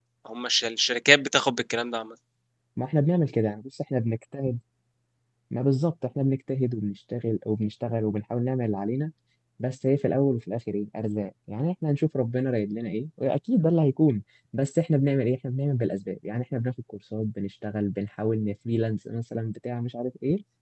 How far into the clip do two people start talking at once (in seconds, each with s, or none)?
none